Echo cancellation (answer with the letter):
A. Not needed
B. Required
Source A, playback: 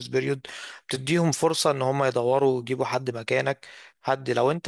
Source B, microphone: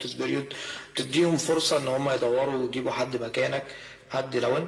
B